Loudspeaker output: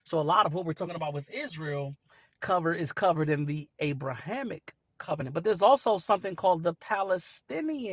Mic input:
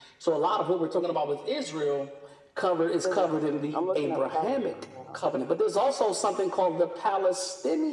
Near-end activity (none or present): present